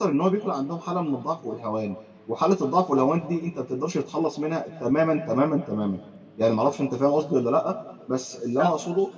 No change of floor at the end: Yes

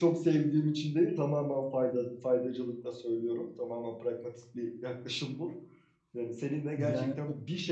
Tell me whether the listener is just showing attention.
Yes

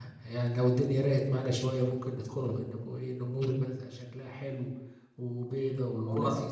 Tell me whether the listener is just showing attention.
No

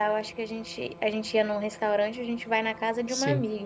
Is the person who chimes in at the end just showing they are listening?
Yes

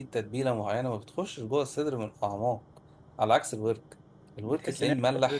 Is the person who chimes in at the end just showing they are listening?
No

